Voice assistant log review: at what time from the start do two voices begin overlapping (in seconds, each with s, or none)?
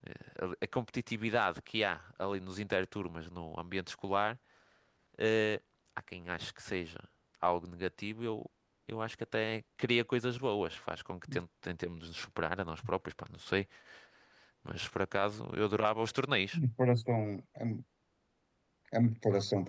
none